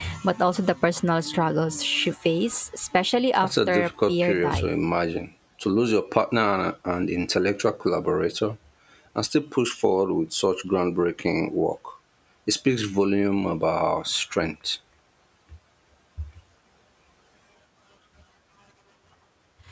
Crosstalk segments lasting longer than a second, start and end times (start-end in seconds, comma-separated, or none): 3.4-4.7